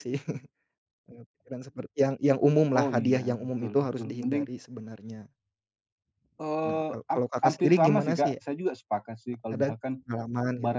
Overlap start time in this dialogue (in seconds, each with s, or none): 2.8 s